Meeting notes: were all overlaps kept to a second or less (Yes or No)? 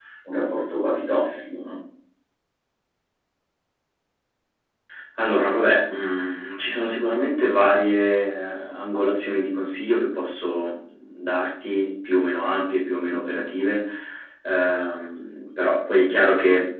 Yes